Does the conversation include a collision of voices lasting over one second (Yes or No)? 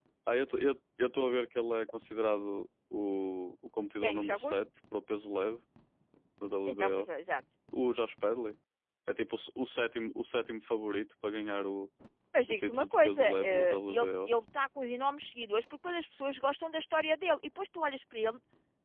Yes